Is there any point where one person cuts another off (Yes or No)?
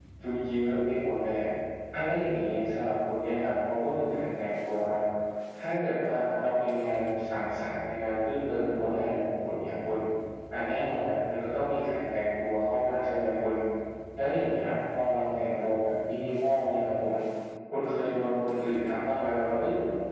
No